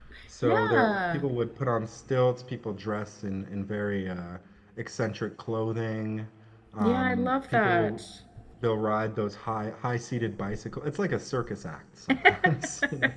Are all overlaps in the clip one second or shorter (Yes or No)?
No